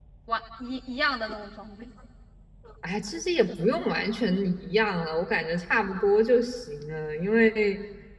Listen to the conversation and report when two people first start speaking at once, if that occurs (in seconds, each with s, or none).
none